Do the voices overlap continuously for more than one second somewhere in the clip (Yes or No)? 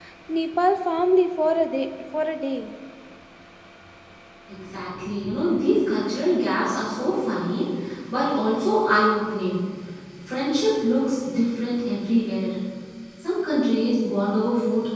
No